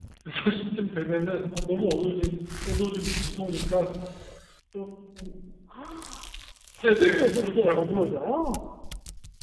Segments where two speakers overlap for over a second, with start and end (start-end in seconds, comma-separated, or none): 6.8-8.0